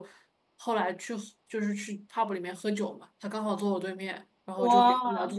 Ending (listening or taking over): listening